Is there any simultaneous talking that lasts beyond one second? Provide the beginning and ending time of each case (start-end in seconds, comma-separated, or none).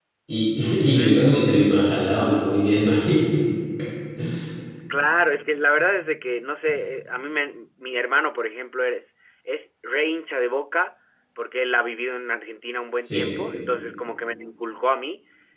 none